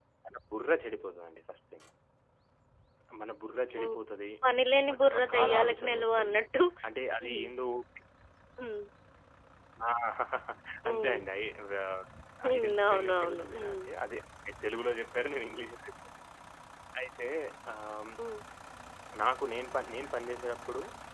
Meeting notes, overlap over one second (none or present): present